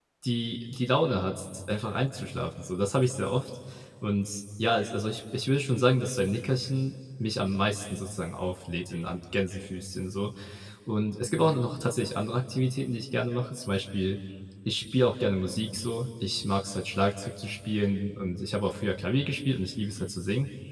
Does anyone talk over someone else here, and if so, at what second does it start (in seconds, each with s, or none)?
none